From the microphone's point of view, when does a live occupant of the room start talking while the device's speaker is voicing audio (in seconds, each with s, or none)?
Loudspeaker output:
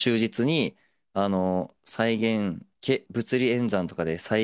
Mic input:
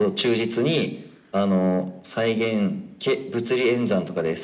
none